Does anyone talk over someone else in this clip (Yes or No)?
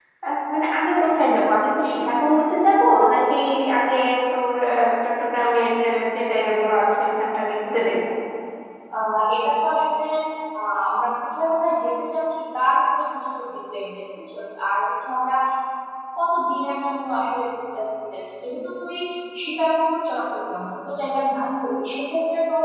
No